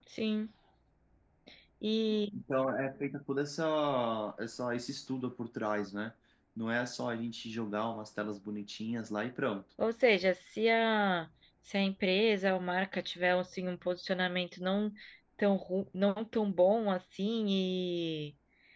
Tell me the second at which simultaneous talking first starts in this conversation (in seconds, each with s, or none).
none